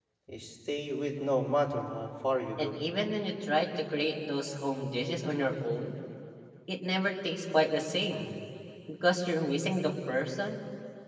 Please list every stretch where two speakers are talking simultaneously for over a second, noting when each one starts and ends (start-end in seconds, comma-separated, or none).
none